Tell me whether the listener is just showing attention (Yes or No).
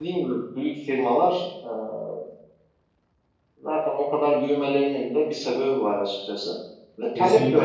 Yes